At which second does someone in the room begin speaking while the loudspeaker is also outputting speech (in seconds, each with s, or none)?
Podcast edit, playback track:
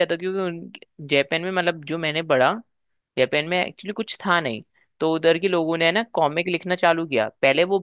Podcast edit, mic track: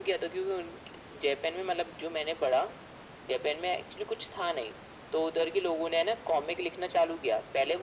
none